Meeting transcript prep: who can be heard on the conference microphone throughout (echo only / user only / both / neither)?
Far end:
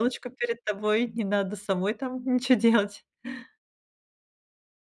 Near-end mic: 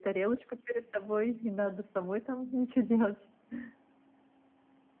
echo only